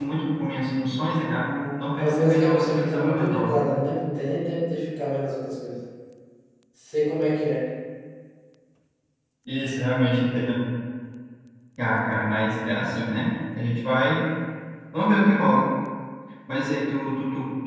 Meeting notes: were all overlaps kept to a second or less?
No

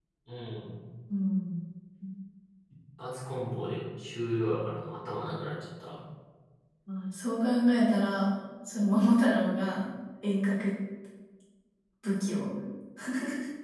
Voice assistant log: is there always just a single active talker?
Yes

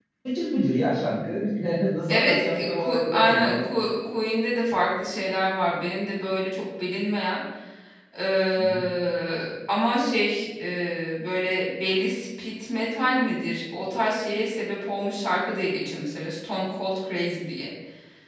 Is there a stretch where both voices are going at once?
Yes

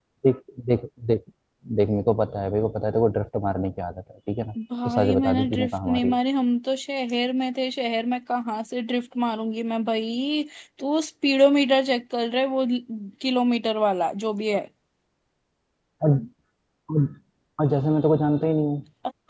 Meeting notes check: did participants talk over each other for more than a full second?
Yes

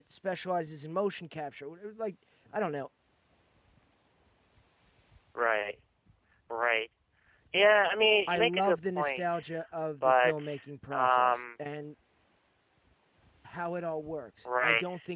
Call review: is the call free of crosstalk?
No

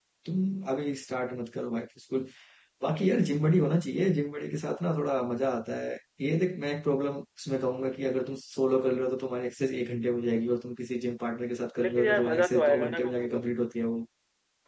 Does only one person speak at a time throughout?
No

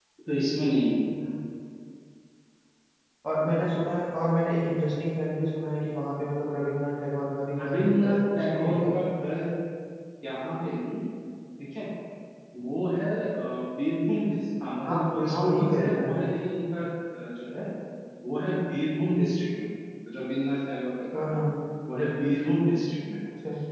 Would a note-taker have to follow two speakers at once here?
Yes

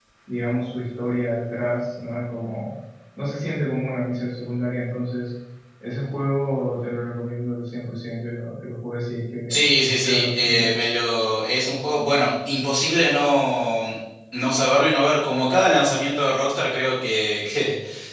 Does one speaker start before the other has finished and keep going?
Yes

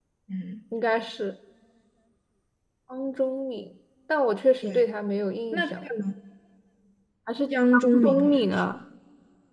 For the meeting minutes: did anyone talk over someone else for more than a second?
Yes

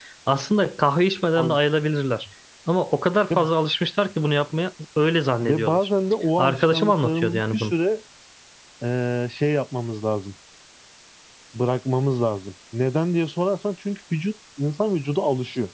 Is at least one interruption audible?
Yes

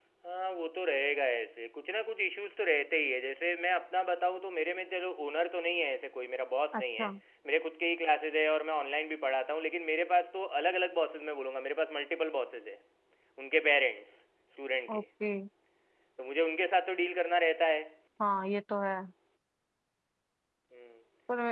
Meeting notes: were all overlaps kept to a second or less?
Yes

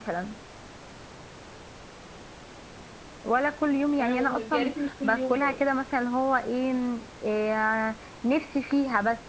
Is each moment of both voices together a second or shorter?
No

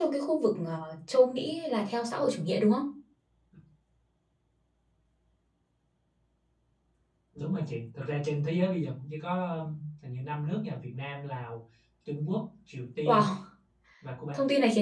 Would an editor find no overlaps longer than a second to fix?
Yes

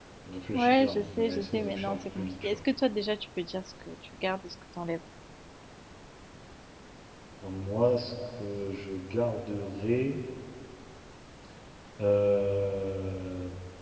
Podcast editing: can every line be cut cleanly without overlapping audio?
No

